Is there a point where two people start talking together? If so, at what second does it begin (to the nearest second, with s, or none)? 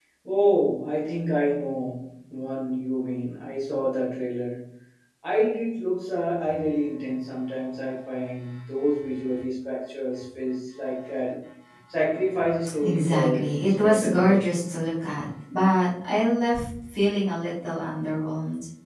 13 s